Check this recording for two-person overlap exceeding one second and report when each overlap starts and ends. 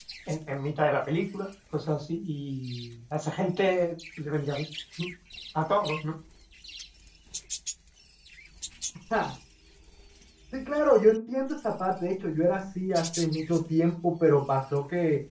none

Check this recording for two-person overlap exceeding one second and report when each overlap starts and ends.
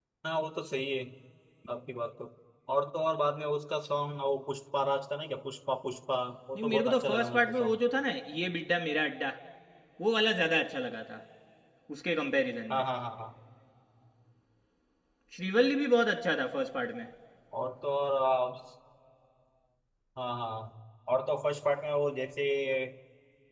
6.5-7.8

